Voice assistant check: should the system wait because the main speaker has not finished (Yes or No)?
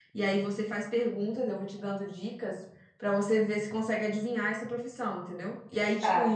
Yes